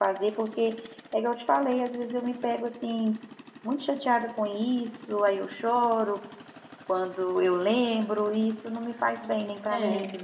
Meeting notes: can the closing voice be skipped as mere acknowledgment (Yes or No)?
Yes